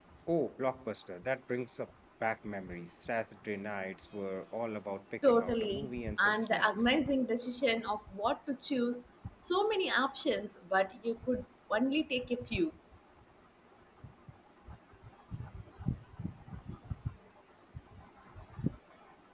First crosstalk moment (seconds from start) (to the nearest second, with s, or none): 5 s